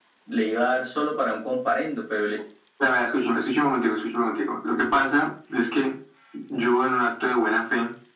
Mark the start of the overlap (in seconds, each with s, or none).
none